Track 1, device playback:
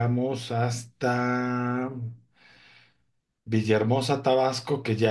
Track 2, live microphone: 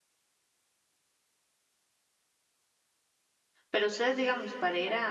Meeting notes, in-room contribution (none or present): present